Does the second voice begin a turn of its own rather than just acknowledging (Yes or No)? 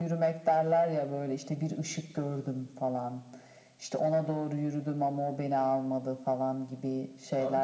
Yes